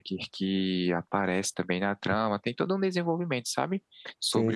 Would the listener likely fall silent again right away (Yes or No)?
No